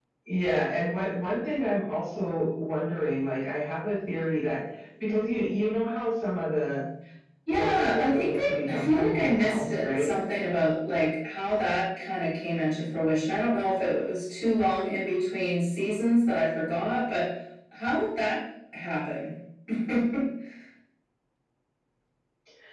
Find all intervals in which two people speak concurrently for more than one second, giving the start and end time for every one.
7.5-10.1

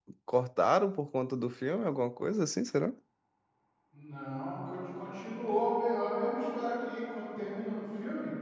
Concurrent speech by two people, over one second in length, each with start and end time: none

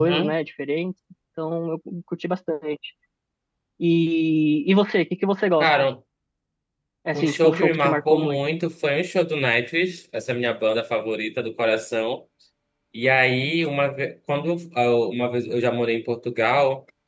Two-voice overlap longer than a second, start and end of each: 7.2-8.4

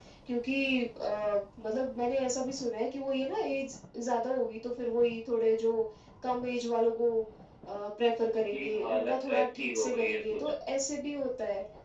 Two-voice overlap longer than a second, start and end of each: 8.5-10.5

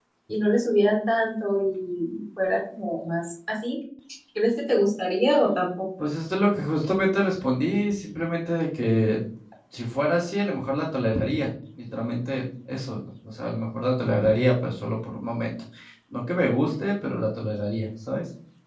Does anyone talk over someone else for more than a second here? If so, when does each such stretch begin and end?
none

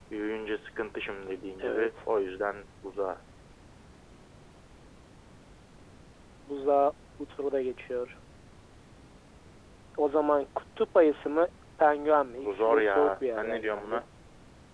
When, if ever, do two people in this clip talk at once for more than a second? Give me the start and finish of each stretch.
12.3-14.0

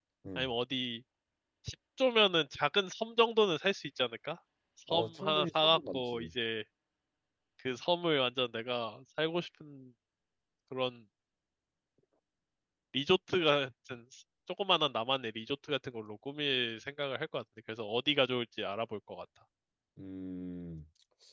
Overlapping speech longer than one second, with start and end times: 4.9-6.3

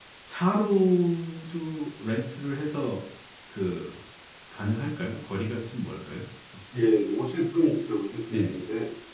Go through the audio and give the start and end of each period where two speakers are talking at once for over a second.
none

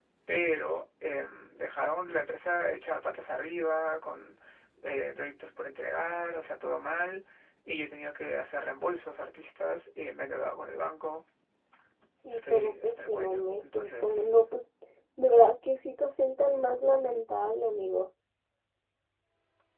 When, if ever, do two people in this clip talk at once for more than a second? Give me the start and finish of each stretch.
12.3-14.3

